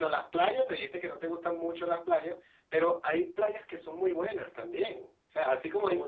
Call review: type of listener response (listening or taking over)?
listening